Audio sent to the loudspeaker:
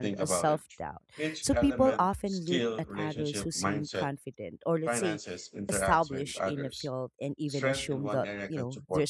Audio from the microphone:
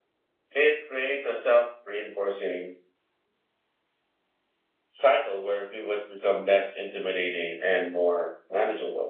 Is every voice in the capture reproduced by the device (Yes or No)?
No